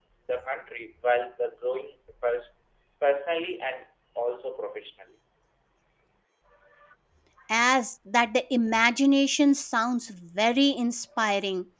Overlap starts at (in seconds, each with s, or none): none